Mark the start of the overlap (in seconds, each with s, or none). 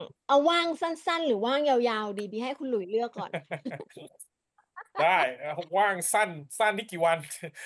none